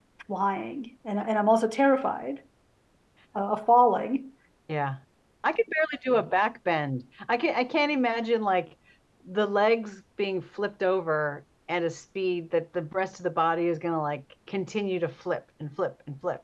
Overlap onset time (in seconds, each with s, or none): none